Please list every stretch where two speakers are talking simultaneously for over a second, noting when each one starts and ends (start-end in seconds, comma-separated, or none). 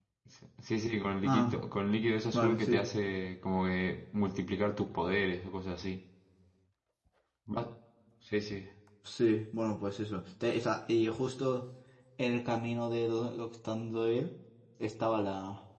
none